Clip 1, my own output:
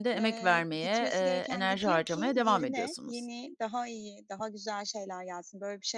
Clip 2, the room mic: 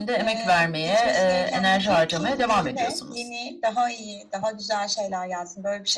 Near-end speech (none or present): none